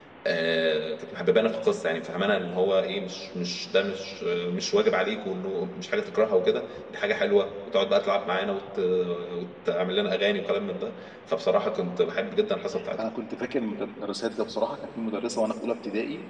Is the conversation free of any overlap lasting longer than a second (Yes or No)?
Yes